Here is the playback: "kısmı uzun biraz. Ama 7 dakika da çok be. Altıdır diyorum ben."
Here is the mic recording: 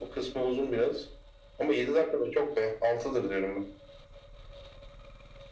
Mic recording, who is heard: echo only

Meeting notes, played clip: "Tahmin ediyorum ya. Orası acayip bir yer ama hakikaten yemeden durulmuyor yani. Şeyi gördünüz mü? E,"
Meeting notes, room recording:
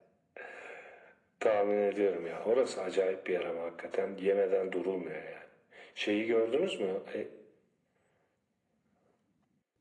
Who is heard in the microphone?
echo only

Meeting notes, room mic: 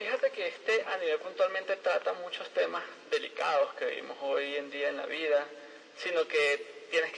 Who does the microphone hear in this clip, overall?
echo only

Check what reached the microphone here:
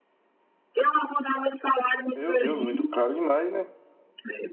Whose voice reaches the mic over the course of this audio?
both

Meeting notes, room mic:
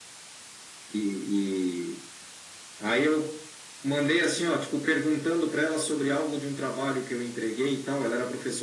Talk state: echo only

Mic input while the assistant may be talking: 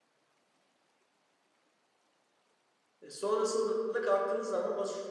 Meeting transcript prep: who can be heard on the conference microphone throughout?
user only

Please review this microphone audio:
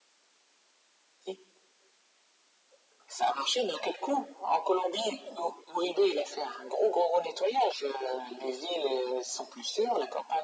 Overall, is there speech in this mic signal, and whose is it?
echo only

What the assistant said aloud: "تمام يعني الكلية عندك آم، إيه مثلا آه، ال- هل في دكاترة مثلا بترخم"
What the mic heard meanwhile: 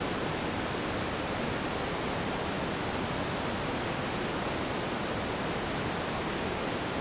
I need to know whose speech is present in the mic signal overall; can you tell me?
neither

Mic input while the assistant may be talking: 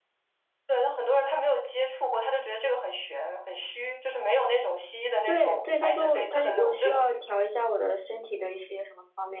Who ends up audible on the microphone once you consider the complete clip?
both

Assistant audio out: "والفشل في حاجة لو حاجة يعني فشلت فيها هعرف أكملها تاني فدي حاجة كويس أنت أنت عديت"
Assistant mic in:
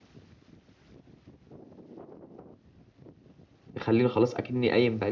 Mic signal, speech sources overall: user only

